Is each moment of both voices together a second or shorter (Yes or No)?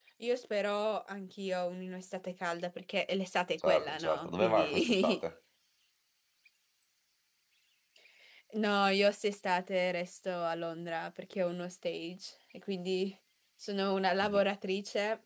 No